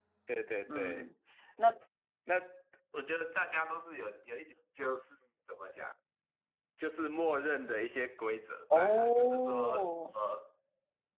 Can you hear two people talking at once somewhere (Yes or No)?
Yes